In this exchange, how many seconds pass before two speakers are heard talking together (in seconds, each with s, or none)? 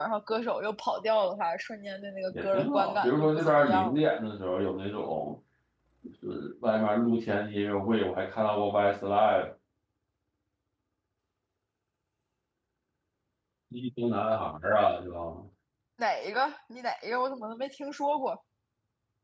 2.3 s